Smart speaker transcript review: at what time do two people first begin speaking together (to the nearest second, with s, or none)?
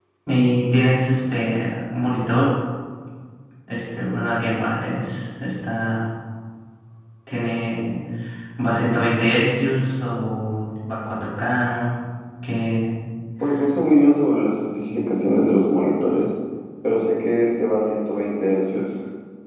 none